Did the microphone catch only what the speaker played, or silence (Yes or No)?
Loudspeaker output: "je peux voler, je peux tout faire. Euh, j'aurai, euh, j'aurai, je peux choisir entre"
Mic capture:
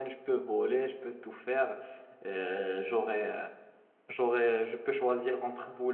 Yes